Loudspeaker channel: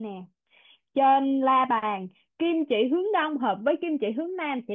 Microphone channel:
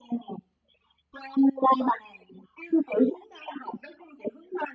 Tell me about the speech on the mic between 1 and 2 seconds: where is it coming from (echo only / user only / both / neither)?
echo only